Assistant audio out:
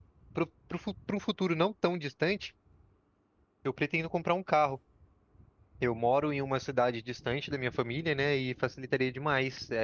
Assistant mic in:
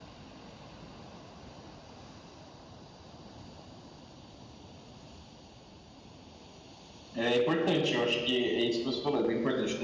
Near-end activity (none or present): present